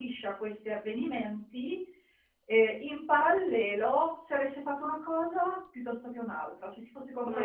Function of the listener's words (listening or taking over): listening